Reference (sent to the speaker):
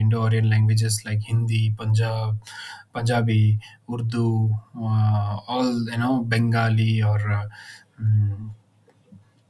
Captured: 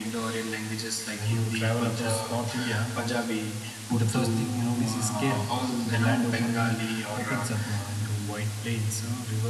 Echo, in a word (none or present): present